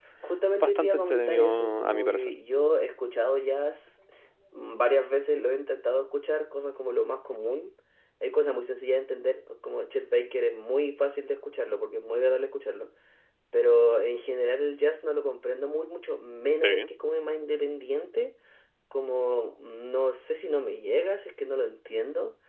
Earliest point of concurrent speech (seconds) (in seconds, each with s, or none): 0.6 s